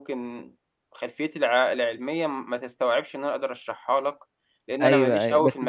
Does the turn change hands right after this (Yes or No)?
Yes